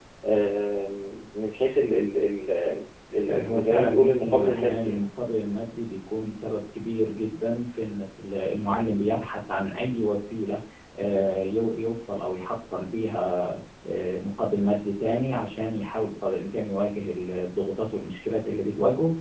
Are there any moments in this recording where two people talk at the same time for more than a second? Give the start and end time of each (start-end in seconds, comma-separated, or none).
3.3-5.0